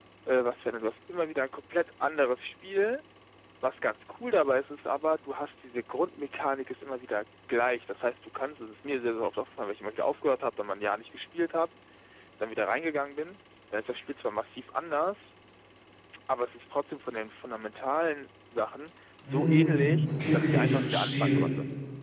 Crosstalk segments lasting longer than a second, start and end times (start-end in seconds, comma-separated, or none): 19.3-21.4